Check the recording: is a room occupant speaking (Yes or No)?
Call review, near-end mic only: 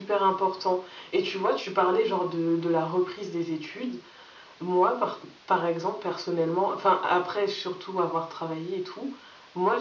No